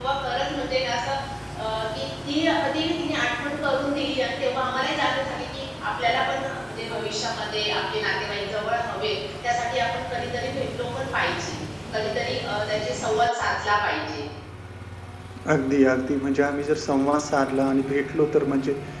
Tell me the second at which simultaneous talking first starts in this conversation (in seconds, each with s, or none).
none